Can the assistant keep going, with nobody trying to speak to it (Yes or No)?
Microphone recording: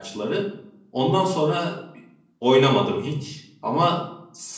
No